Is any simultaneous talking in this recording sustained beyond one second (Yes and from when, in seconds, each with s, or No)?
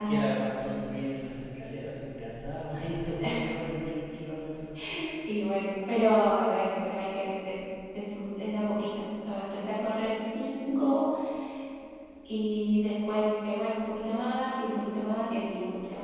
No